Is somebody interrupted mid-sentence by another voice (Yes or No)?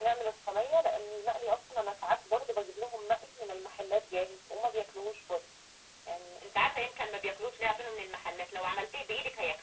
No